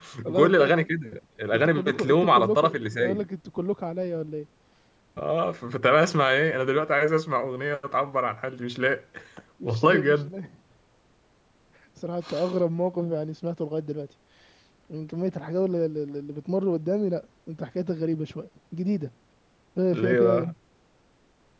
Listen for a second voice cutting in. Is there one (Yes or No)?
Yes